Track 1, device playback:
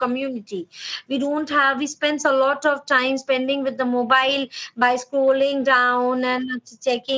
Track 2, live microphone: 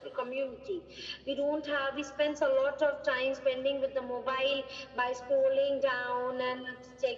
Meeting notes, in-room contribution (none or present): none